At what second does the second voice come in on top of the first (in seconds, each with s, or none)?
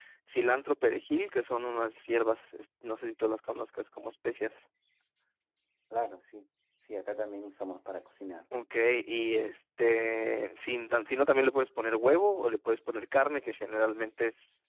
none